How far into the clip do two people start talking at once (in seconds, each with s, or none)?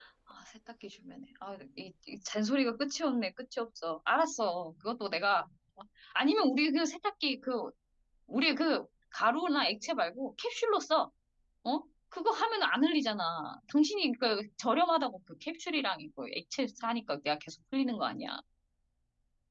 none